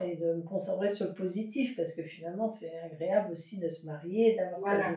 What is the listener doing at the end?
listening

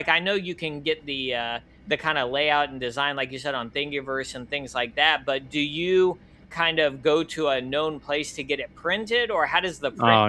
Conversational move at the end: taking over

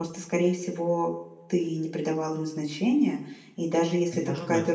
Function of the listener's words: listening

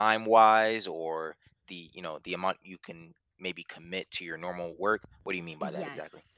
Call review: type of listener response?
taking over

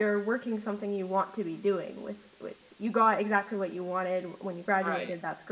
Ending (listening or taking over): listening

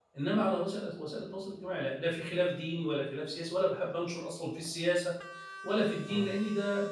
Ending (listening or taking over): listening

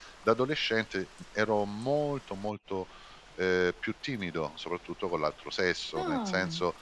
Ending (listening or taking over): listening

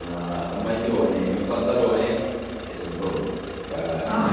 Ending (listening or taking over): taking over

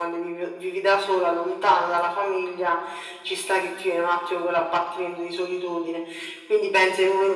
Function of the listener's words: listening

